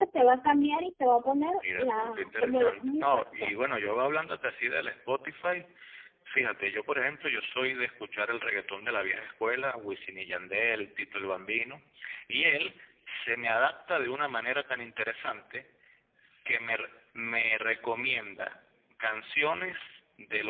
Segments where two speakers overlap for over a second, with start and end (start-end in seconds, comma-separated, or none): 1.6-3.9